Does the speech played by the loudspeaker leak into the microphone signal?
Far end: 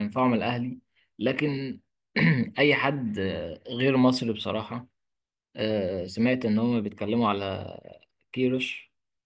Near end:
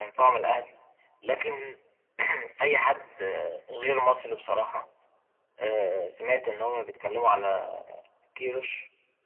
Yes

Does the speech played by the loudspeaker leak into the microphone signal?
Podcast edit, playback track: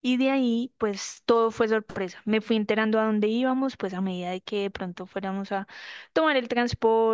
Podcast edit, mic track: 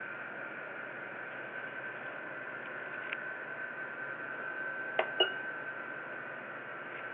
No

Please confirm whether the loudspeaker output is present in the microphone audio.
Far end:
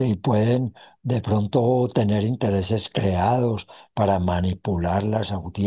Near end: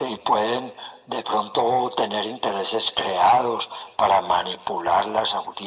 Yes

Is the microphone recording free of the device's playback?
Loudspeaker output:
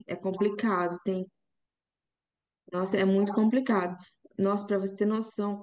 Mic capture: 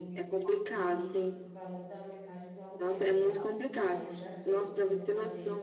No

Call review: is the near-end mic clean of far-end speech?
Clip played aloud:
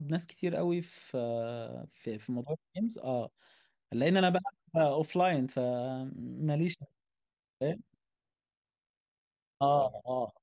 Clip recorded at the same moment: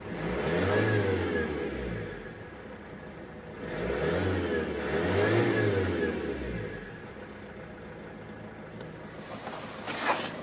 Yes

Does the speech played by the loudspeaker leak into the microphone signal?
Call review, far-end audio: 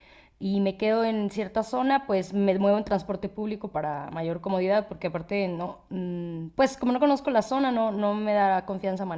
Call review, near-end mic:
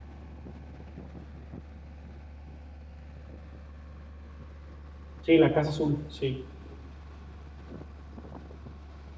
No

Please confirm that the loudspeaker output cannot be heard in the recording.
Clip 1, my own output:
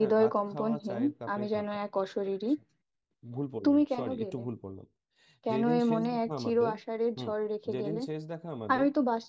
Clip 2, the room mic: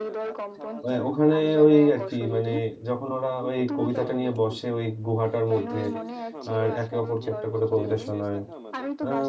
No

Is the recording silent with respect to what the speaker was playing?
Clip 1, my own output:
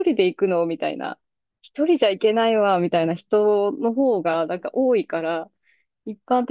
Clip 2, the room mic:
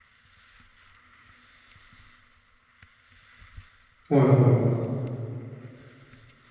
Yes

